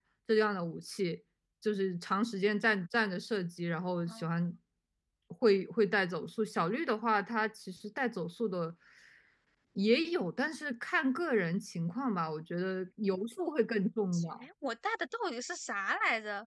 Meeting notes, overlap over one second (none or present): none